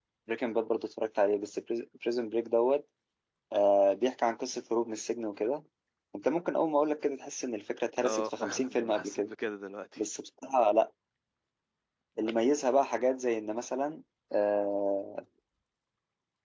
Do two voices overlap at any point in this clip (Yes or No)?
Yes